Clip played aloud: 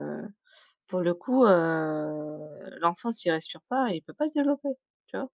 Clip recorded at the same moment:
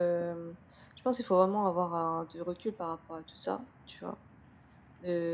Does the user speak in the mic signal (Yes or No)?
Yes